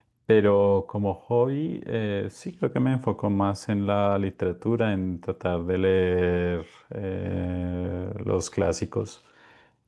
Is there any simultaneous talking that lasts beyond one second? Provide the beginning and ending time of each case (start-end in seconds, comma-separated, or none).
none